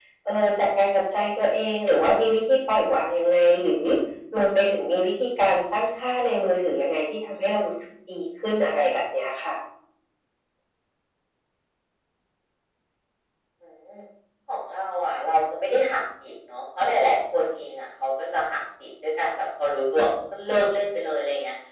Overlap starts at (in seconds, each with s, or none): none